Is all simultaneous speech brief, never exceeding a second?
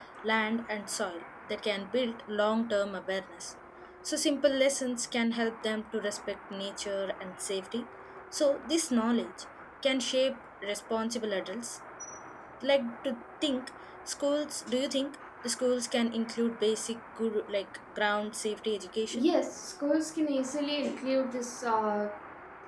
Yes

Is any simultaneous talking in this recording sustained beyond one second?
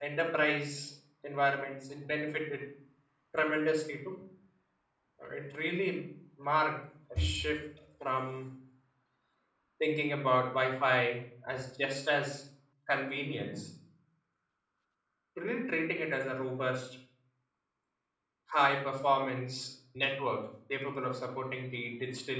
No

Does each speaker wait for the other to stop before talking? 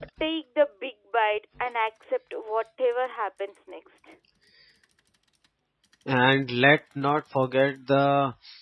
Yes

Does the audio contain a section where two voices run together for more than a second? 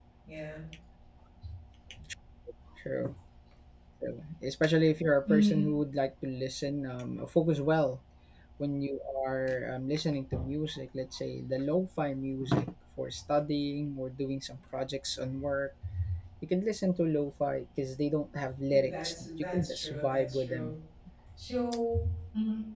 Yes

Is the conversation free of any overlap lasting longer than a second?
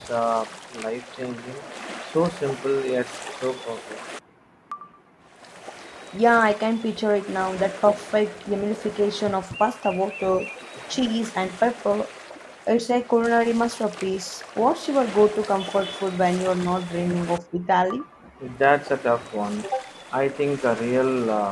Yes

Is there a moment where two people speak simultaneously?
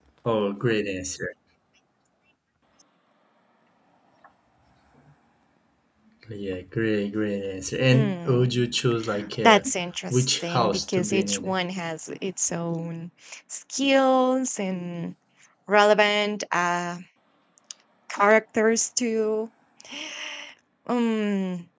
Yes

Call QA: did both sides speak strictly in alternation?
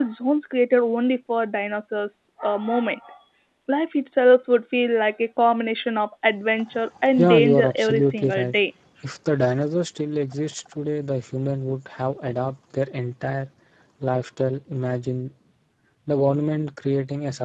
No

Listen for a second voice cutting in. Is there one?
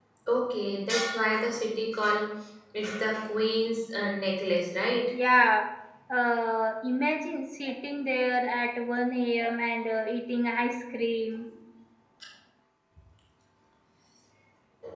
No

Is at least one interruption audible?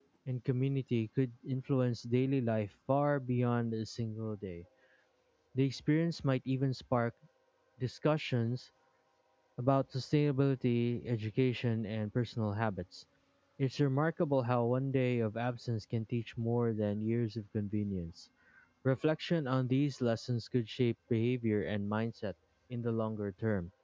No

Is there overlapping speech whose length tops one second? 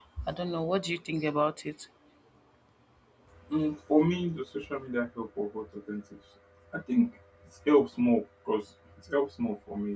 No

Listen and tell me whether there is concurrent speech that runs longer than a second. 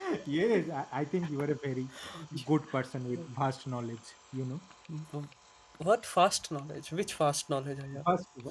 No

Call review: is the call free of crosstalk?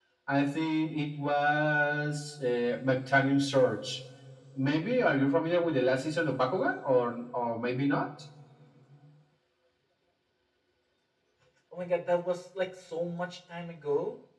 Yes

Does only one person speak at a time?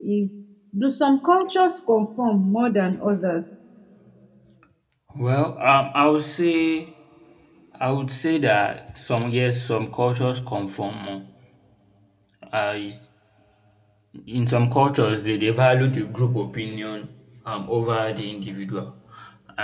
Yes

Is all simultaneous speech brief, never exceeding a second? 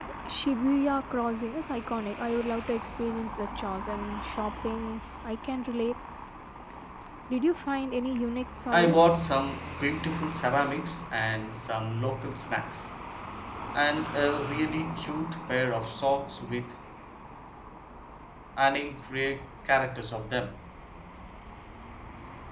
Yes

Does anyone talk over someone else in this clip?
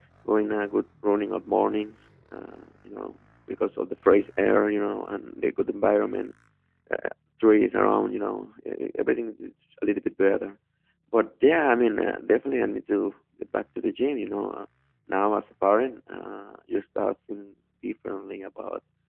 No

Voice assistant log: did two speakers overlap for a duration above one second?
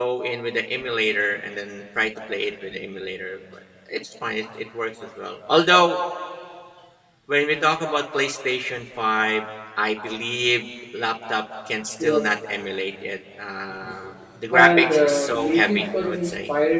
Yes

